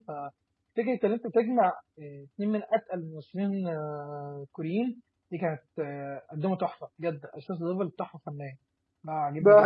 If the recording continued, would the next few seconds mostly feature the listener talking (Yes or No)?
Yes